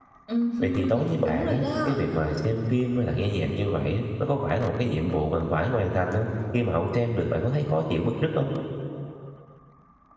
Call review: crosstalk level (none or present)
present